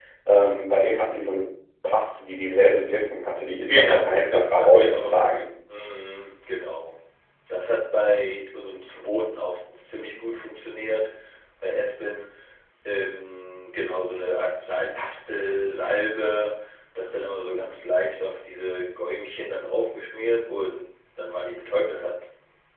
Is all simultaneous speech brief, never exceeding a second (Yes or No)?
No